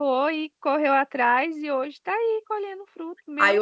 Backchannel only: No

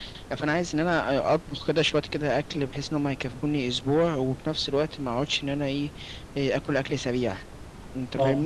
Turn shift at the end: Yes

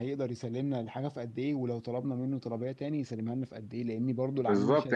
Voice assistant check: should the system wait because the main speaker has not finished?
No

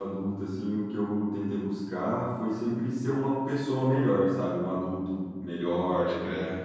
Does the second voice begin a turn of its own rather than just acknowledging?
No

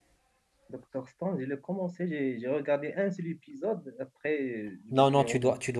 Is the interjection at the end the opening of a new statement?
Yes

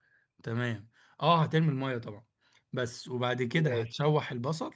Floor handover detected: No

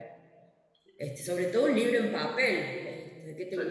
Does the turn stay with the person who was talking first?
Yes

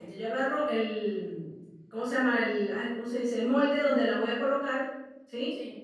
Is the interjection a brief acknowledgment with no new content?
Yes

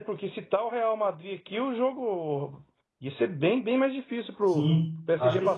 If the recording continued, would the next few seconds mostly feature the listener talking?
Yes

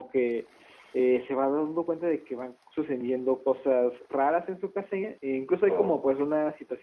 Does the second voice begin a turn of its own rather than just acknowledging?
No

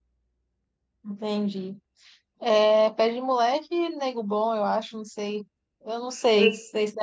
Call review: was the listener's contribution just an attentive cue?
No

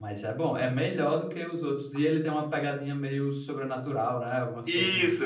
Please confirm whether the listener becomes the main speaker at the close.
Yes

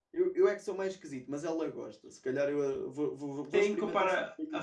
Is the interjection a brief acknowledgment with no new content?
No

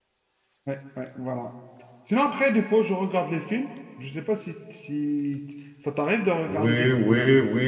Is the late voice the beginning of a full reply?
Yes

